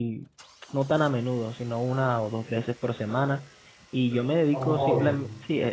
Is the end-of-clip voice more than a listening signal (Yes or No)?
No